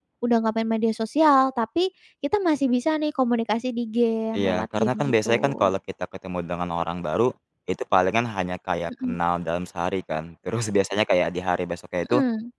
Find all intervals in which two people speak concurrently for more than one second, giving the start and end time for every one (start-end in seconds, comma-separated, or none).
4.4-5.7